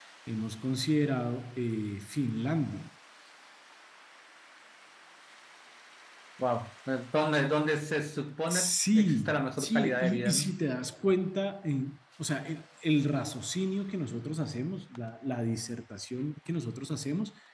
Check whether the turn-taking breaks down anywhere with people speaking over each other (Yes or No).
Yes